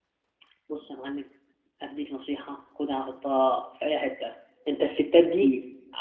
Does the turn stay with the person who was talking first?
Yes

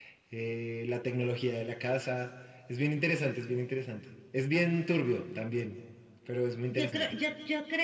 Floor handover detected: Yes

